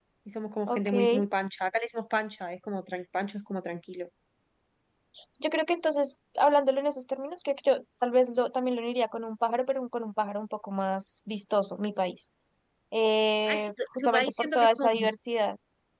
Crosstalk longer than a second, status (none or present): present